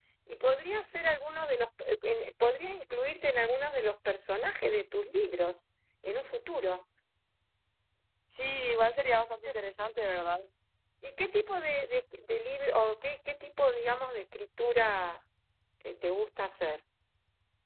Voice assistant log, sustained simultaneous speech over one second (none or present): none